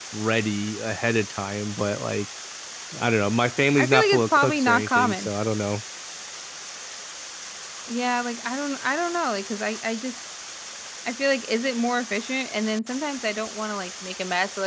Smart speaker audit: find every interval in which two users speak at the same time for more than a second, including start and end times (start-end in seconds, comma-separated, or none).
3.8-5.3